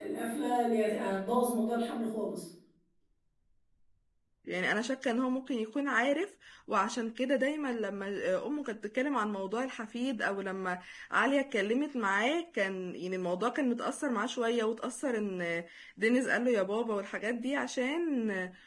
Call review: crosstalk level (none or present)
none